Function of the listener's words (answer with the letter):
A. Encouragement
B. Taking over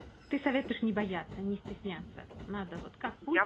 B